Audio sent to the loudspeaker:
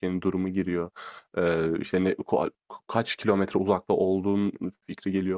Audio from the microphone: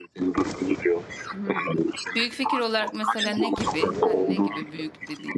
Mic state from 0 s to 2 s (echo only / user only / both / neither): both